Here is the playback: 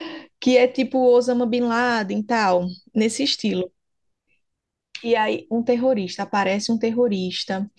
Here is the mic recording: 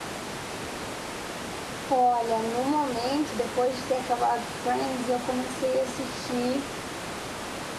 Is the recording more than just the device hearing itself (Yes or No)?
Yes